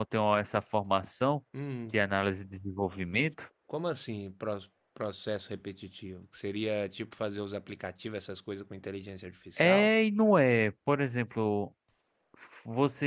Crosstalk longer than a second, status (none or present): none